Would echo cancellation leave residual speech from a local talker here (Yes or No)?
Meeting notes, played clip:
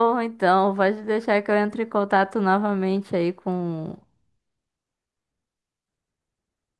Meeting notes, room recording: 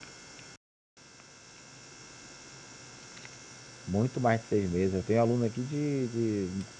Yes